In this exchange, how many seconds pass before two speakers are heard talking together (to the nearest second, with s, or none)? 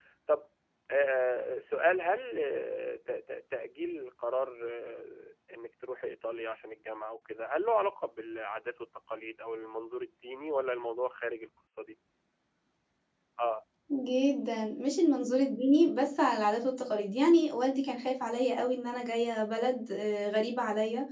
none